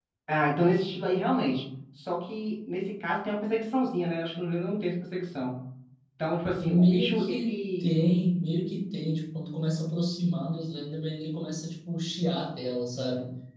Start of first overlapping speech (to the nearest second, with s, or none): 7 s